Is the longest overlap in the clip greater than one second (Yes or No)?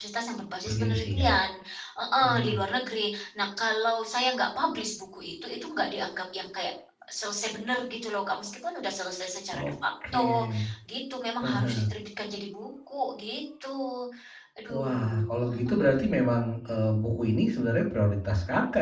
Yes